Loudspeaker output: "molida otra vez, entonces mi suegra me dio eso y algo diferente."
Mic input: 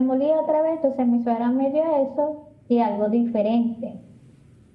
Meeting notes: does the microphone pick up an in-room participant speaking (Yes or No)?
No